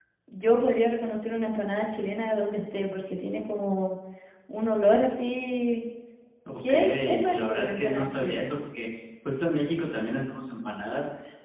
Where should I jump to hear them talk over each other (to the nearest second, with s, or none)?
7 s